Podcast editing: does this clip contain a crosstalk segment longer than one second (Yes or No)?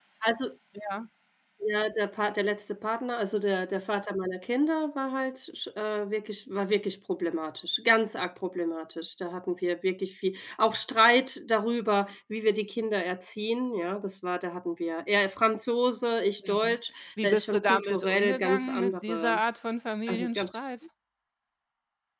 Yes